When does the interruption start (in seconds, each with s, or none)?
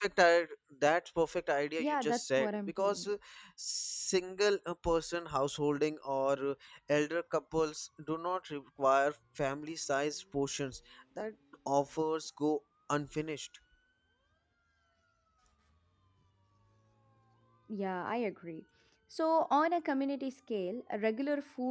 1.8 s